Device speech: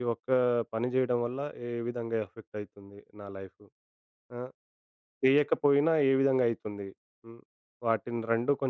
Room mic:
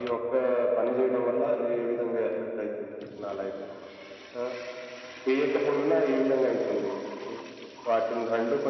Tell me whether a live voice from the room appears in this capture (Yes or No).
No